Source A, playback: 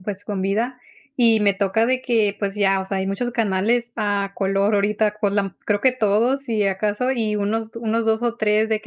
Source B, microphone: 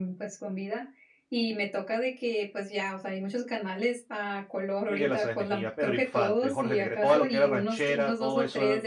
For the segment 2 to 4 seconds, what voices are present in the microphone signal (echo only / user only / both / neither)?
echo only